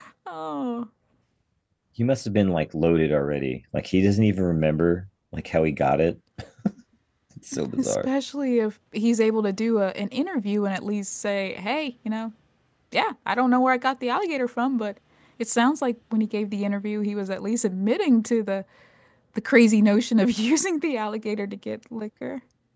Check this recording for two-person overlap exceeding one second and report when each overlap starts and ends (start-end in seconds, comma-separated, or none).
none